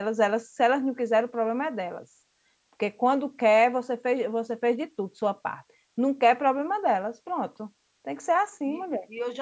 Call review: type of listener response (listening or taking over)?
taking over